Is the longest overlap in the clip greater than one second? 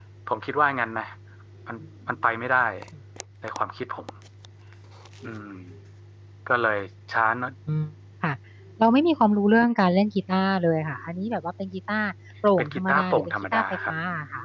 Yes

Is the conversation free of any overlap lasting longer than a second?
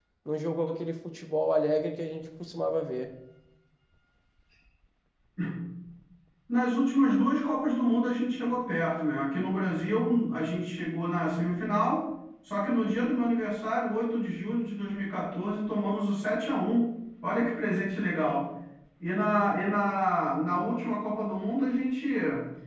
Yes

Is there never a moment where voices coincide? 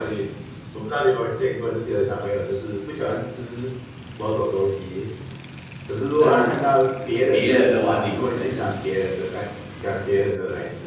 No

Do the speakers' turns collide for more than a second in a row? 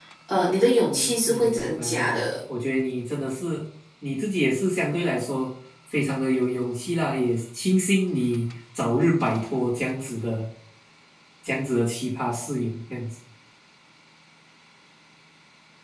Yes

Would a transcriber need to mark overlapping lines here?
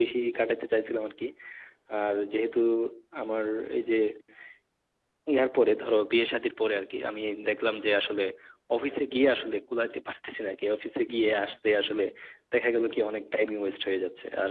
No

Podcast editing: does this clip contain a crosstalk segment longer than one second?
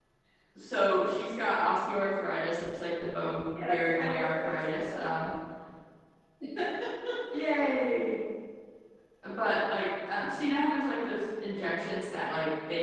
Yes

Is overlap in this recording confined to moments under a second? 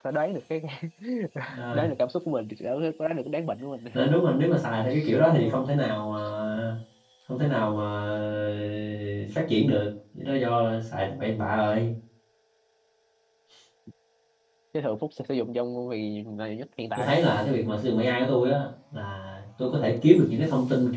Yes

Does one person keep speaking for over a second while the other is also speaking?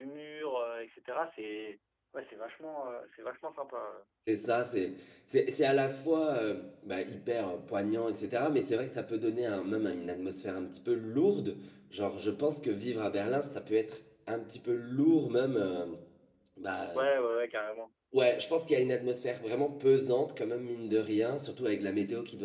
No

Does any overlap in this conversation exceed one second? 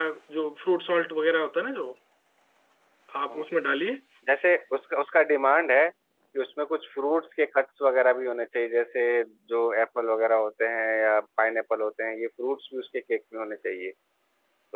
No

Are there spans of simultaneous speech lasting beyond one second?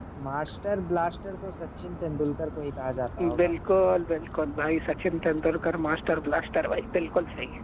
No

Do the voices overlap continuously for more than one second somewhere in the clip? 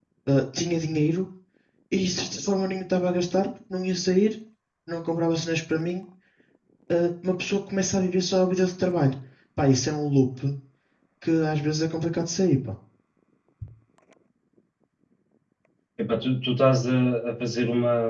No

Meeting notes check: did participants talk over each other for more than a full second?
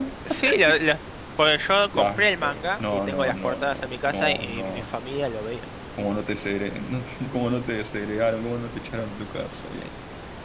Yes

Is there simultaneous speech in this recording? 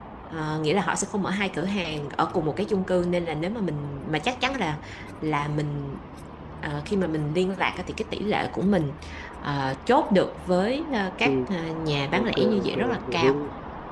Yes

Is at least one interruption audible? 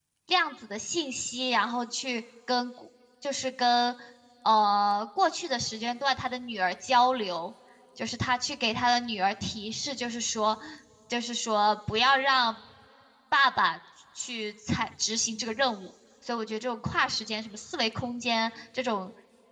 No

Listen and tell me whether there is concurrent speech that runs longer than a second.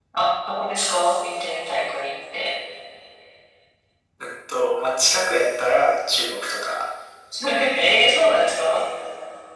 No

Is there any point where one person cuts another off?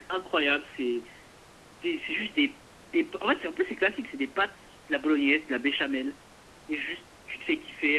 No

